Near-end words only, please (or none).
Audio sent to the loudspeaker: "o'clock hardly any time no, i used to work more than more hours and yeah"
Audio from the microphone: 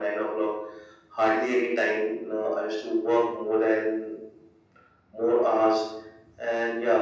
none